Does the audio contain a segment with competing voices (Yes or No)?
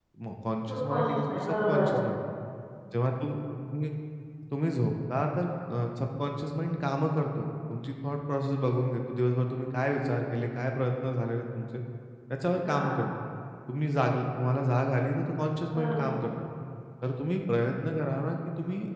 Yes